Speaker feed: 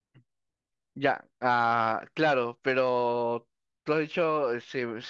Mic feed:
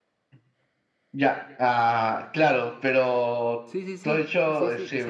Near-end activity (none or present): present